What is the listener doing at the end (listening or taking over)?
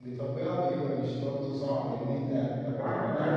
taking over